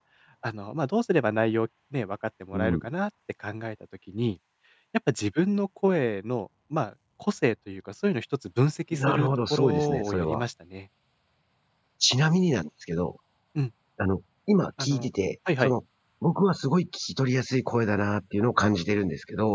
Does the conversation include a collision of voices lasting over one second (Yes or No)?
Yes